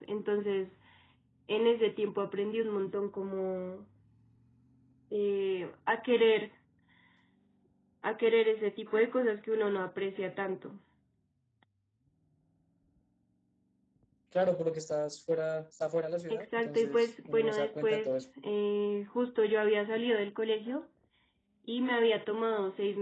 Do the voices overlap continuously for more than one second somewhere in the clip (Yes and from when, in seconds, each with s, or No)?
Yes, from 16.3 s